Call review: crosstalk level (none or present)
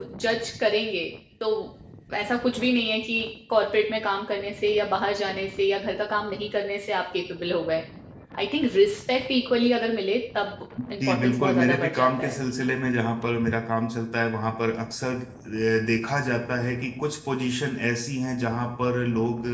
present